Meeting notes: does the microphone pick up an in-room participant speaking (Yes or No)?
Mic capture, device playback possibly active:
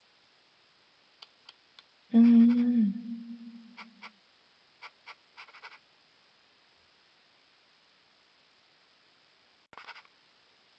Yes